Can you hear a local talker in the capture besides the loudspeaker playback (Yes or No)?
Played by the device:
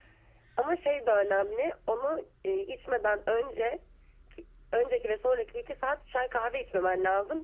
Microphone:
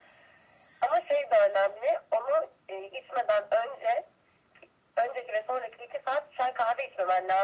No